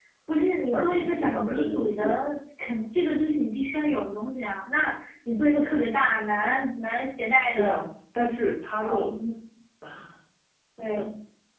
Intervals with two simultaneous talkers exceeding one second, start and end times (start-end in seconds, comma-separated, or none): 0.7-2.0